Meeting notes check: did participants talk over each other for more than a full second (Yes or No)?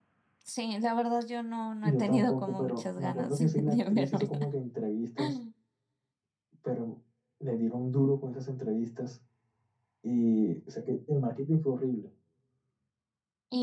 Yes